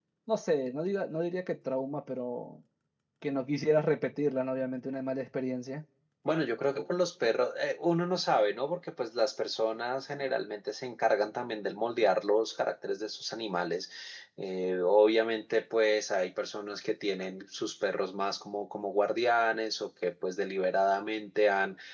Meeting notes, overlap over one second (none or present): none